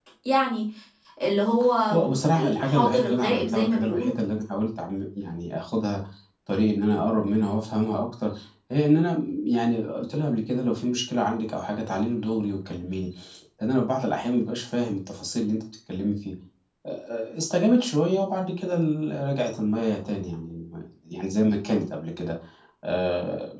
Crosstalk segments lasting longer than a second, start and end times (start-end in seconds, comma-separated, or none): 2.4-4.1